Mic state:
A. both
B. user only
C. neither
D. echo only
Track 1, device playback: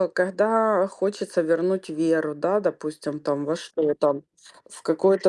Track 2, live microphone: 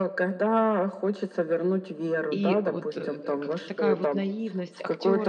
A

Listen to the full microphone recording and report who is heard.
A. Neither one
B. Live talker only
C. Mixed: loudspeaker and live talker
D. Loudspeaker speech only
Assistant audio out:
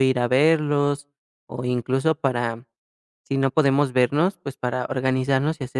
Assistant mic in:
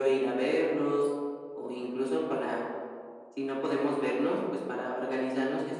D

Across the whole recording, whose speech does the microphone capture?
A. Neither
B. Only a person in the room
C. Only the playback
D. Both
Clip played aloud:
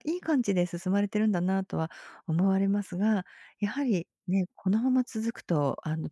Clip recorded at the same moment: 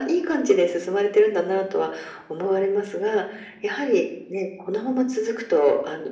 C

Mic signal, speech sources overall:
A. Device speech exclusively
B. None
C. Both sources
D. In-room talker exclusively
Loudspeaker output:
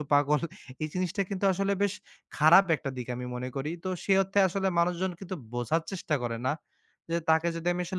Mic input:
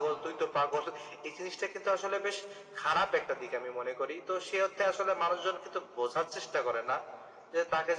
A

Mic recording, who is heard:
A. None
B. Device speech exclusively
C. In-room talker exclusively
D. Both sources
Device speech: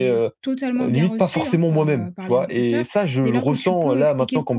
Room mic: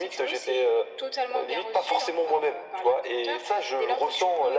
B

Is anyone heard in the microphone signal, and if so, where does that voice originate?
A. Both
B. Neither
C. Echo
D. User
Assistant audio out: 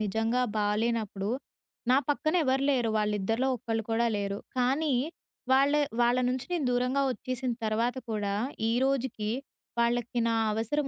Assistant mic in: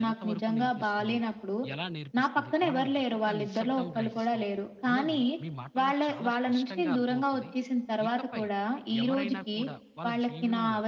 A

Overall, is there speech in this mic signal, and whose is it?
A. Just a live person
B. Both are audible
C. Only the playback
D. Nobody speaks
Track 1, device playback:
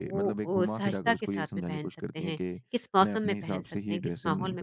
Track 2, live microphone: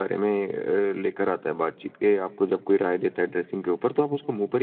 A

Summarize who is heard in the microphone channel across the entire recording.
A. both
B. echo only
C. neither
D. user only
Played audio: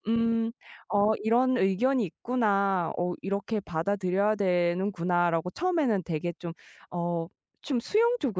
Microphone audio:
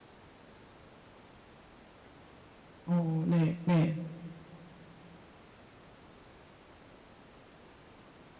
D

